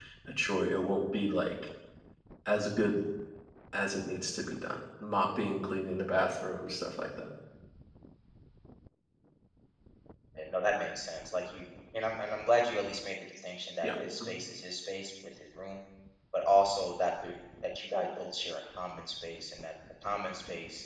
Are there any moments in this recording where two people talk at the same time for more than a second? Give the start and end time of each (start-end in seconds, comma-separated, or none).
none